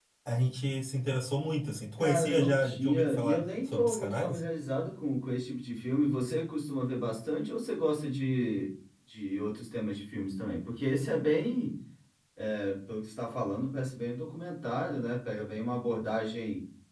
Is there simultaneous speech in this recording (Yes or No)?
Yes